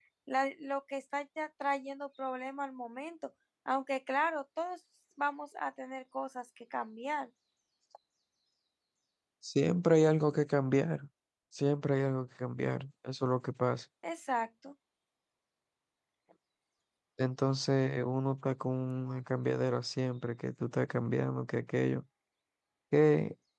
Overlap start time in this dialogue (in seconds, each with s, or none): none